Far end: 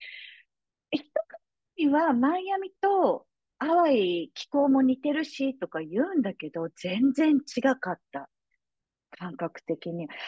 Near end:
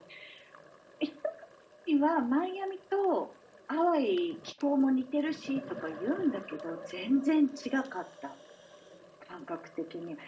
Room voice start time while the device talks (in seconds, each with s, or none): none